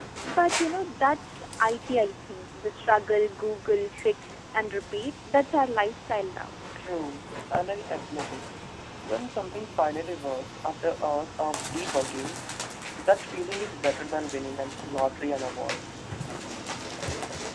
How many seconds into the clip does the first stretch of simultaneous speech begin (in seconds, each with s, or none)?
none